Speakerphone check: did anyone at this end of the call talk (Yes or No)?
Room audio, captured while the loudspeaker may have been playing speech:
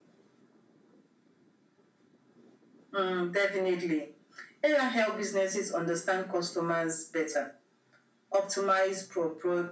No